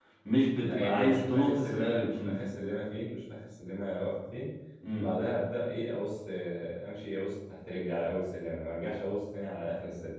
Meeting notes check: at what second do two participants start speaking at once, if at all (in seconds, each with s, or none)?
0.6 s